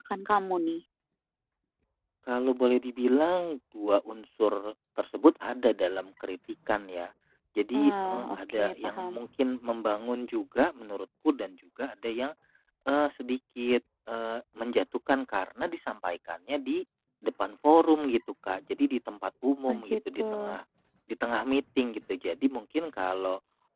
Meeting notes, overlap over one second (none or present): present